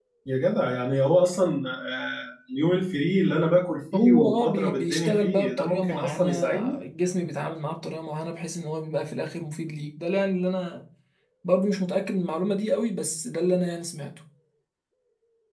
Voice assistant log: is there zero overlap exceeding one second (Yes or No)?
No